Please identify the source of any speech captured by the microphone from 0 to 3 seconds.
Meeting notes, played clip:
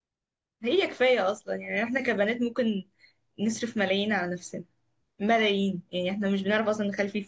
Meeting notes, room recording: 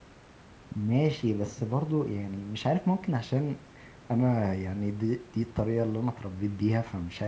user only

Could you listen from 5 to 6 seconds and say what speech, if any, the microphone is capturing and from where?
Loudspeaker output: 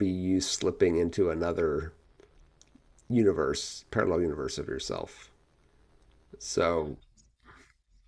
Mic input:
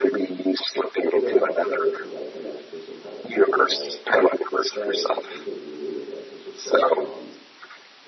both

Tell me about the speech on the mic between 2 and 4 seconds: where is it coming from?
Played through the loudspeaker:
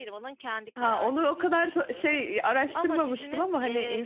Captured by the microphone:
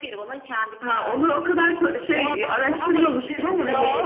both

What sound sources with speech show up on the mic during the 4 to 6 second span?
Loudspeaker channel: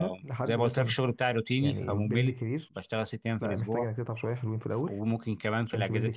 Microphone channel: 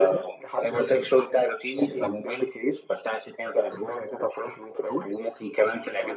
echo only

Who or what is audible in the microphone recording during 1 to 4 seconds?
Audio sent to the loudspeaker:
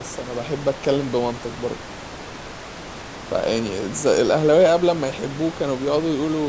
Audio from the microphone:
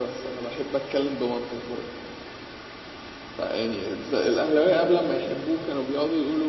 echo only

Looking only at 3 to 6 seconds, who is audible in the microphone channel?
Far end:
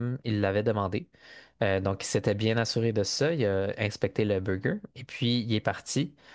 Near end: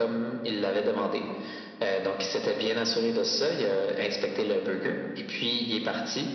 echo only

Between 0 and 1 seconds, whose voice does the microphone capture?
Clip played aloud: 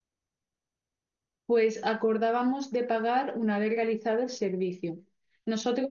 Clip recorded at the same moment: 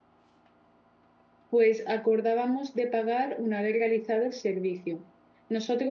neither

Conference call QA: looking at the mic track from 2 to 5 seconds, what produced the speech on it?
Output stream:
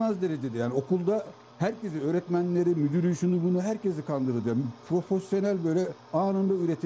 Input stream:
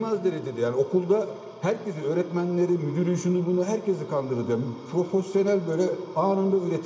echo only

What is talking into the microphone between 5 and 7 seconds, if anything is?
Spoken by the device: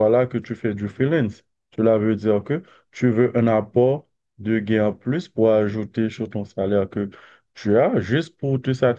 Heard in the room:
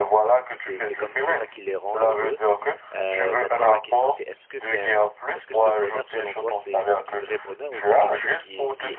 both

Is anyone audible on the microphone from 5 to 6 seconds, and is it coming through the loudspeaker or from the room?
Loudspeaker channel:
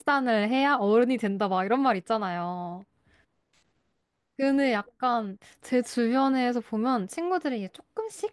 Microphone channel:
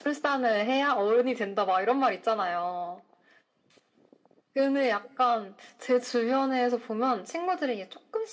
echo only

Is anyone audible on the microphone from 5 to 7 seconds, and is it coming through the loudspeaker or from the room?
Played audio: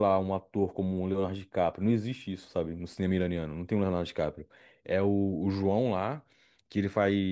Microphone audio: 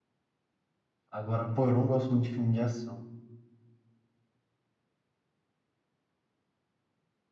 neither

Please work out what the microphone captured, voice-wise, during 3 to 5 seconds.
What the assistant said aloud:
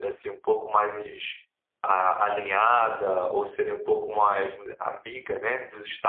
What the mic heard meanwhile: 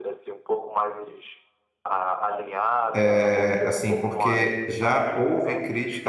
both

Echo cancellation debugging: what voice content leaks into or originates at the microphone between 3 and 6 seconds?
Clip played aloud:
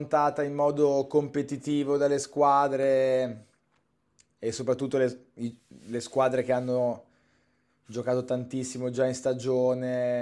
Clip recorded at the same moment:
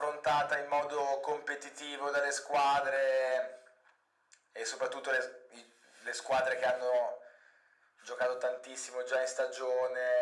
echo only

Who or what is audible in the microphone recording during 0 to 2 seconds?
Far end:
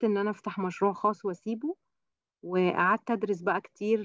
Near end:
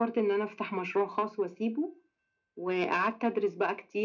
echo only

